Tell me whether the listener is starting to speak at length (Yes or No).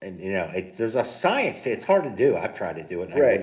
Yes